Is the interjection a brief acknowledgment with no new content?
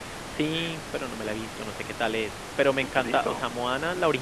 Yes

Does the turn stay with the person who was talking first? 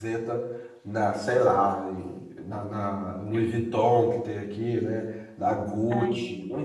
Yes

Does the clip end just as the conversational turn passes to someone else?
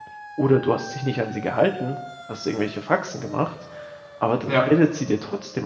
No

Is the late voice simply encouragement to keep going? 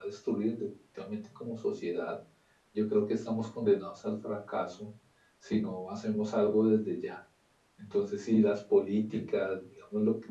Yes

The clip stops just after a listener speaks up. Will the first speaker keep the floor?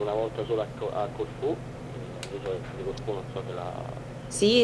No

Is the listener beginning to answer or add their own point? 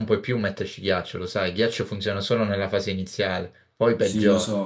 Yes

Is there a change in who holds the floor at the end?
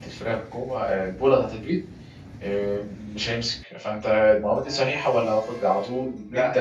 Yes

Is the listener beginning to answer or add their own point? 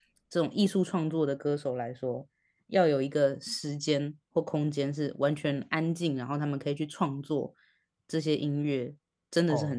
Yes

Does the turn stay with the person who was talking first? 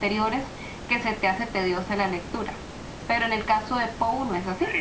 No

